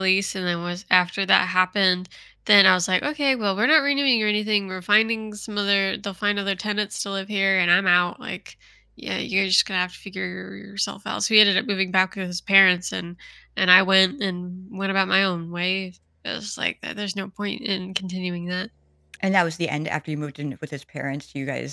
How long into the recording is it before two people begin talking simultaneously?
none

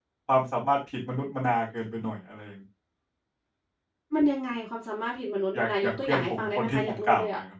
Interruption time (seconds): 5.5 s

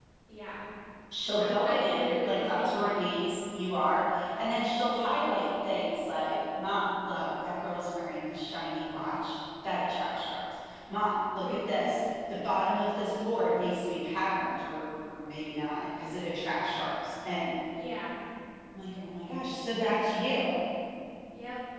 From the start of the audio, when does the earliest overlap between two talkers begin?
1.4 s

